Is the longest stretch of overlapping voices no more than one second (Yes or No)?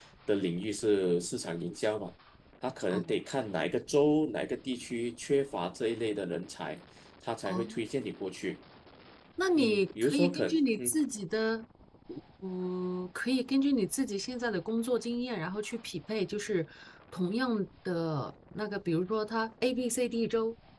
No